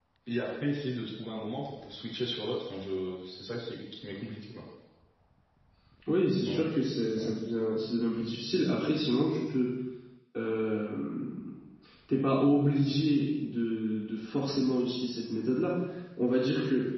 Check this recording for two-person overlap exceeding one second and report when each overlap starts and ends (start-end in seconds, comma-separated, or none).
none